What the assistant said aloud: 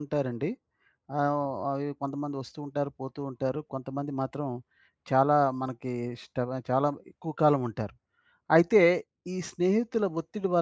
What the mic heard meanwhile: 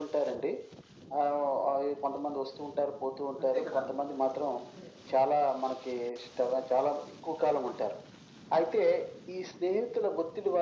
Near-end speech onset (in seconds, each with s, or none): 3.4 s